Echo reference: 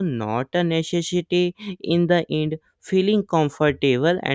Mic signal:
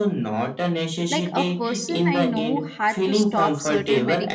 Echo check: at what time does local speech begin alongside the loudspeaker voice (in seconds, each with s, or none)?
1.1 s